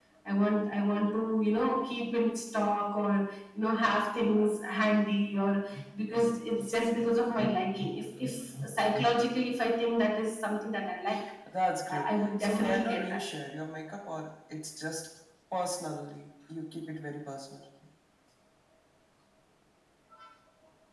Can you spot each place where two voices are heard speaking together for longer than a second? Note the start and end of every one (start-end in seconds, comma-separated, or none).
11.9-13.2